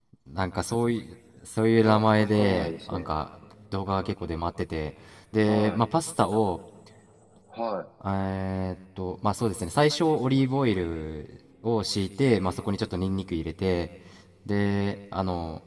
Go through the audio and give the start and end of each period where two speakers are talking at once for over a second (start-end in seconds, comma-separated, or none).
1.8-3.1